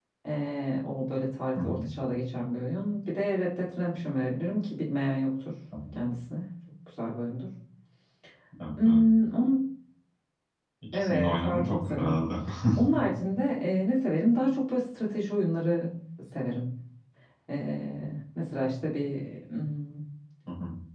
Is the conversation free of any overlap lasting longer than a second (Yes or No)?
No